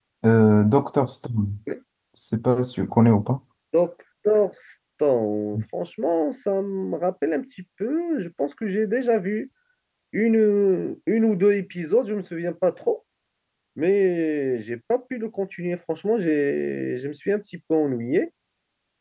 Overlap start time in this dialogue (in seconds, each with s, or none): none